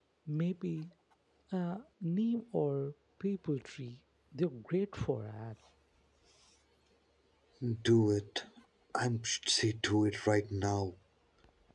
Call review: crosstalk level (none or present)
none